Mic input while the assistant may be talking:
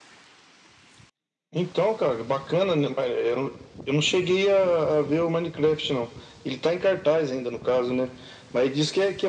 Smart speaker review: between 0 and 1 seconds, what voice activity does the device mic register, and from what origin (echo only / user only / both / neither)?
neither